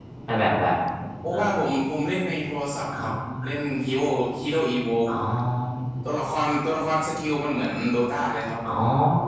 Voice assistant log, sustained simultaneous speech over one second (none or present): none